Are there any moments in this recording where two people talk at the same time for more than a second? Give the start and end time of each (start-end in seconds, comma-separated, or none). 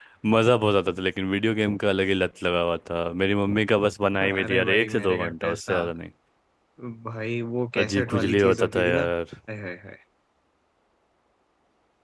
4.2-5.8, 7.8-9.0